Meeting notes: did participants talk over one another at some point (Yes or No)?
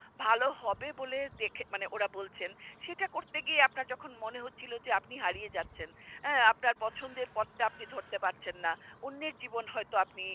No